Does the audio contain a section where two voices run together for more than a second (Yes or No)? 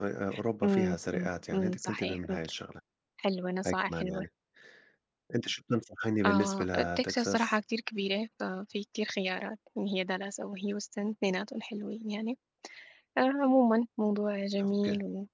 Yes